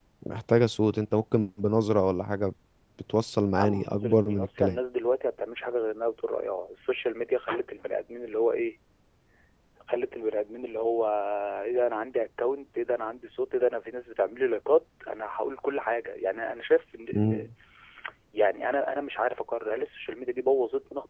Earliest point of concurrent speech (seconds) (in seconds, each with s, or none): 3.6 s